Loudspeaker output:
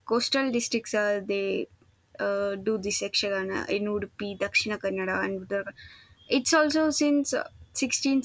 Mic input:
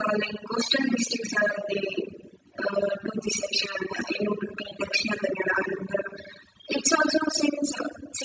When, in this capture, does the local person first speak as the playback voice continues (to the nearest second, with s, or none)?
none